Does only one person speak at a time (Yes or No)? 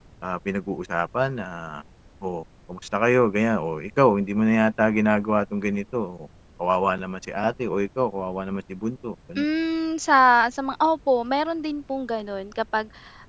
Yes